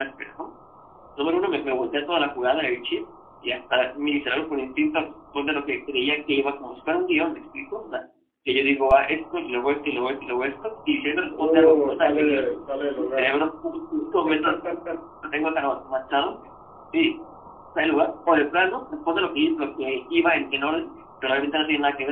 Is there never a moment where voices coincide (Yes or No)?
No